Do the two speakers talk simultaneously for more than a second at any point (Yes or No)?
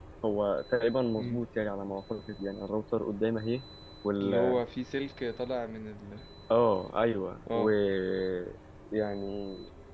No